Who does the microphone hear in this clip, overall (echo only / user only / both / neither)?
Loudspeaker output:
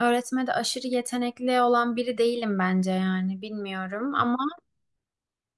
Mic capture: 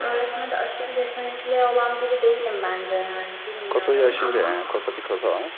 both